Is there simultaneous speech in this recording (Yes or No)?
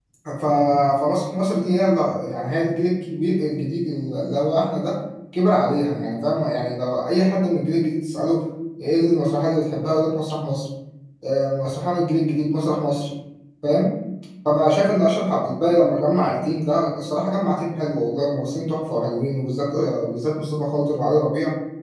No